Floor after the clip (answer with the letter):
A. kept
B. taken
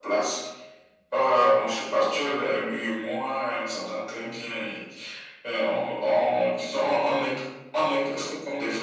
A